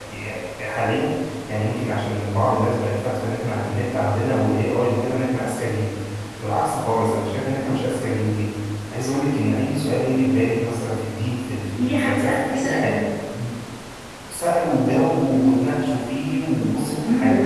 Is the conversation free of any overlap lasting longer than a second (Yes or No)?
No